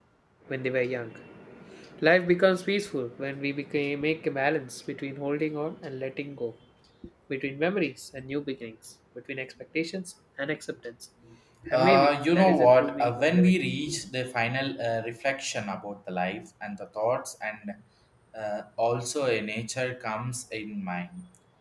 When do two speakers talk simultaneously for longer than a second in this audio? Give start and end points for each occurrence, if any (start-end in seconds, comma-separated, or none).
11.7-13.5